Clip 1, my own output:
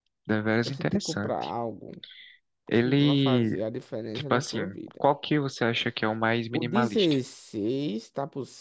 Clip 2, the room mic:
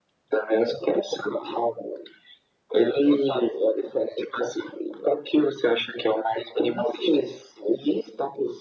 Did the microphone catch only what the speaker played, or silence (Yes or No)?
Yes